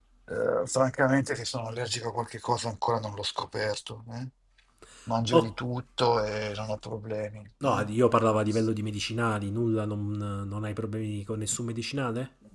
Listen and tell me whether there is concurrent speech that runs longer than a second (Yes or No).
No